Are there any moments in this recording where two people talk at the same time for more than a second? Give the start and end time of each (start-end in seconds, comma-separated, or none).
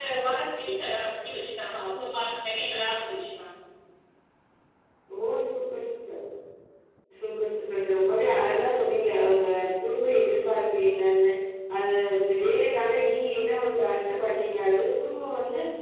none